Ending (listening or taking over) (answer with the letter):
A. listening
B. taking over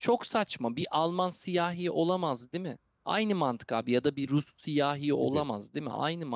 A